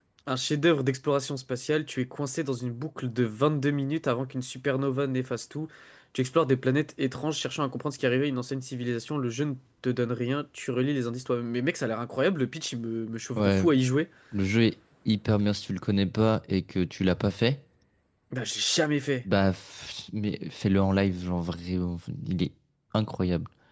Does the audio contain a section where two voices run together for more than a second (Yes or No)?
No